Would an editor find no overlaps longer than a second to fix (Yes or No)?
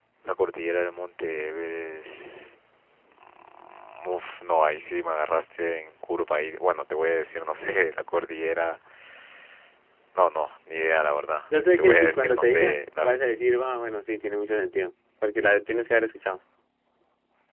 No